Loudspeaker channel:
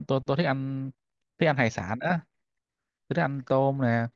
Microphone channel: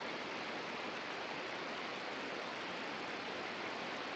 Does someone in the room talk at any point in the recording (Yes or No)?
No